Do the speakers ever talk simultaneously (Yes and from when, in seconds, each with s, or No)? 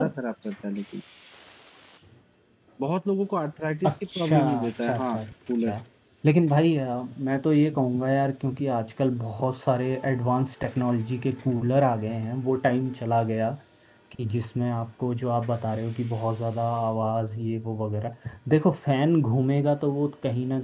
Yes, from 3.8 s